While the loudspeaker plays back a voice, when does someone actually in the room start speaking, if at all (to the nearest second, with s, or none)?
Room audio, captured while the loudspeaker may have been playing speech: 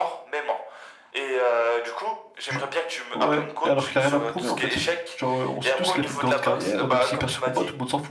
2 s